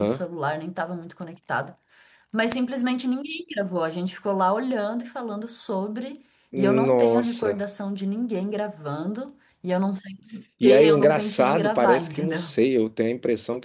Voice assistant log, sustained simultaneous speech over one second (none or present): present